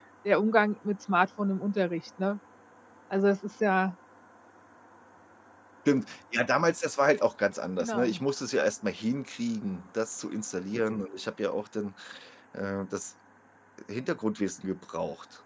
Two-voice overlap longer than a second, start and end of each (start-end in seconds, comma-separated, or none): none